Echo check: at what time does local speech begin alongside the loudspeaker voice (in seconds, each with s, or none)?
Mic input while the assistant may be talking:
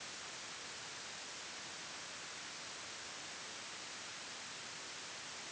none